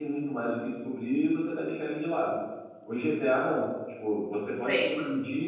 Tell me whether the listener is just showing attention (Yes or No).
Yes